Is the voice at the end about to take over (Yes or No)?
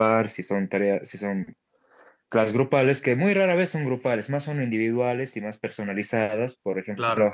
No